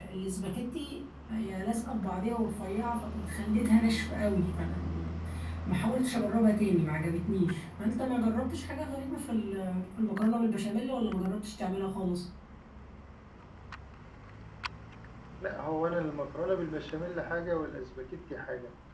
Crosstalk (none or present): none